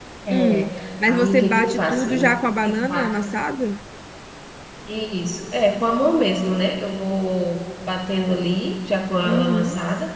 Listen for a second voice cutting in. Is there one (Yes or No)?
Yes